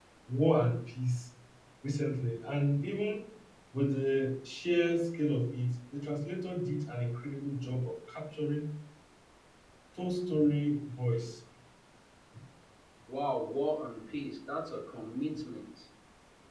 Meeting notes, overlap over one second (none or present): none